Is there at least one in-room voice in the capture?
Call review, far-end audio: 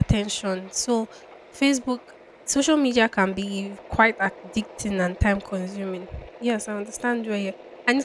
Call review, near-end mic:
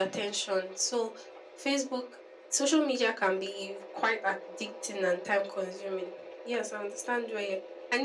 No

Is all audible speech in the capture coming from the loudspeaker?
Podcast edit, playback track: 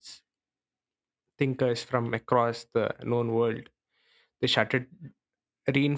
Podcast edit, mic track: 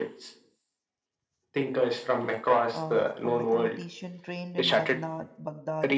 No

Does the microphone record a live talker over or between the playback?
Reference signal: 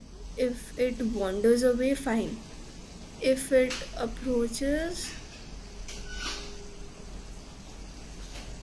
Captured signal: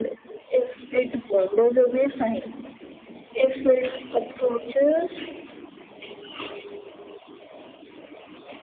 No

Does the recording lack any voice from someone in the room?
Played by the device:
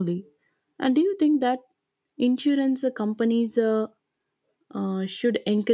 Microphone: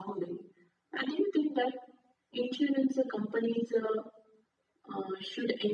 Yes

